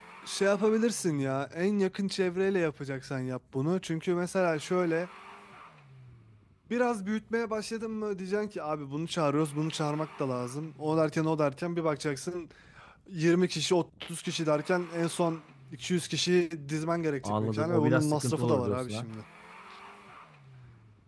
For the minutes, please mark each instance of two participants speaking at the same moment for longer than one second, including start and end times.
17.2-19.1

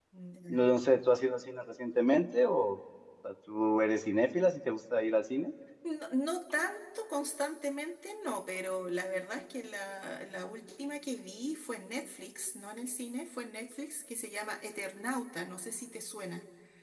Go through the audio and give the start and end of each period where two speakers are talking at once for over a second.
none

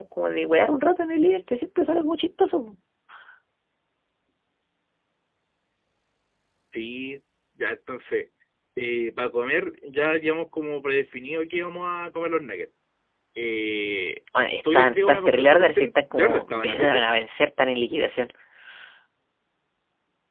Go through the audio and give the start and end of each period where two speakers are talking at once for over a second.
14.7-17.0

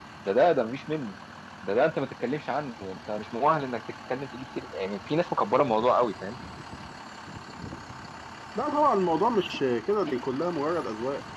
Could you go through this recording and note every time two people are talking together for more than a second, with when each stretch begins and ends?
none

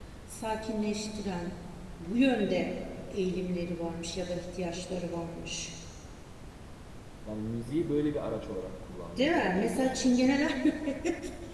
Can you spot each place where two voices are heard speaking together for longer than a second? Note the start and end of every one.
9.2-10.4

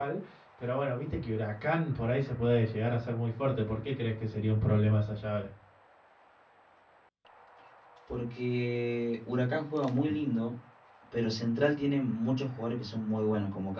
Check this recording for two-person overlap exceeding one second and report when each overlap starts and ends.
none

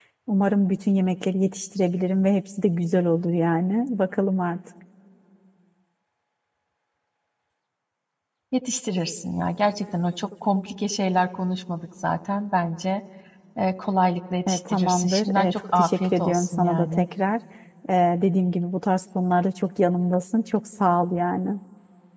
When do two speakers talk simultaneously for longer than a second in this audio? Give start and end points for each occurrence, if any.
14.5-17.0

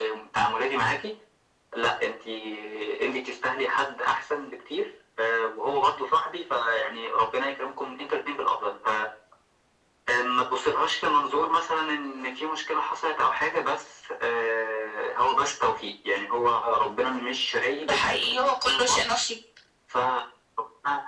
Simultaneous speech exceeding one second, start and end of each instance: 17.8-19.0

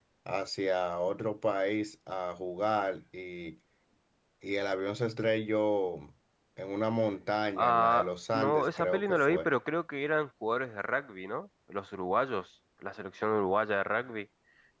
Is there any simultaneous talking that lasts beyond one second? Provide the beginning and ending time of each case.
7.6-9.5

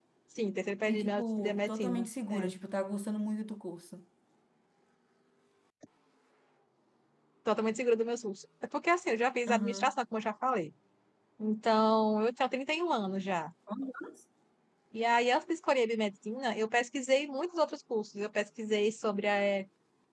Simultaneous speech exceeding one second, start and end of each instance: 0.9-2.5

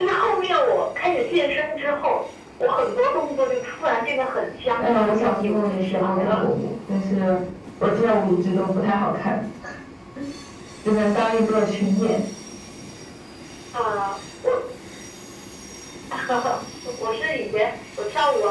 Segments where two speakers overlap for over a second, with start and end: 4.8-6.5

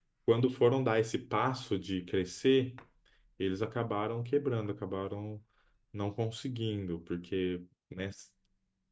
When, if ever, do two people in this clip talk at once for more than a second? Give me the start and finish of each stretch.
none

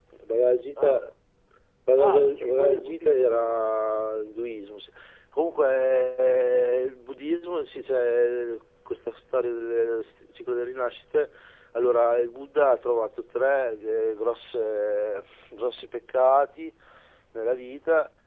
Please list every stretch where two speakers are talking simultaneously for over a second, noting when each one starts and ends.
2.0-3.6

